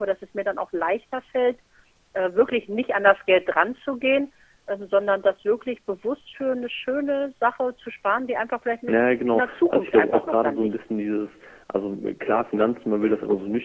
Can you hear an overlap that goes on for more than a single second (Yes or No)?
Yes